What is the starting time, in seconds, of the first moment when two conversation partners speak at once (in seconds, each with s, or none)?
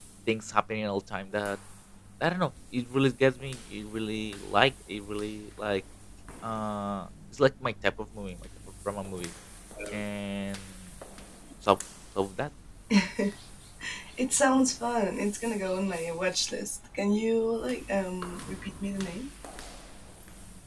none